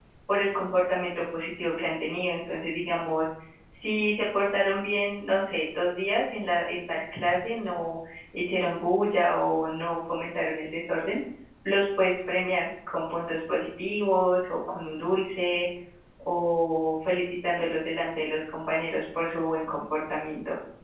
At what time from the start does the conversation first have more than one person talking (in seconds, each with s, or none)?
none